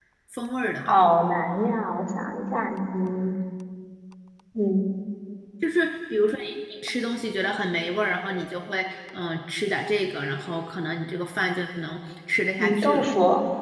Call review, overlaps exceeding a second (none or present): none